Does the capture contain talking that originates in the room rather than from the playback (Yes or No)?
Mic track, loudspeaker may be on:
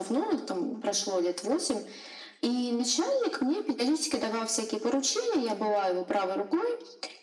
No